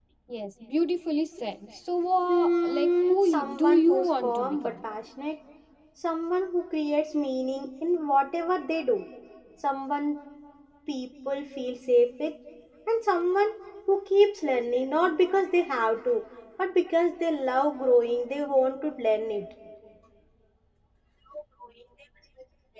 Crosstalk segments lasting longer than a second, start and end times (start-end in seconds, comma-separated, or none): 2.3-4.7